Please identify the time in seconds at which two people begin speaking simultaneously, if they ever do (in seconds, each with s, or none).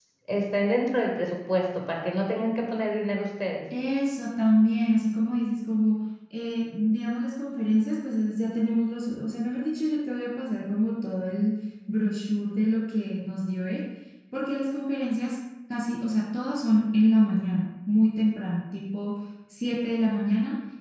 none